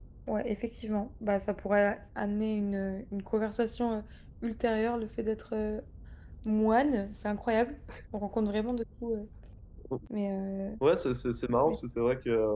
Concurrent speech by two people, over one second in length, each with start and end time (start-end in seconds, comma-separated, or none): none